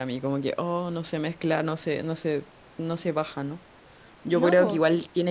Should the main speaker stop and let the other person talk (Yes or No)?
No